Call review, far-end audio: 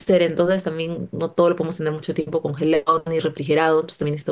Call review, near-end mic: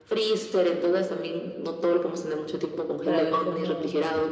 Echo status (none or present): present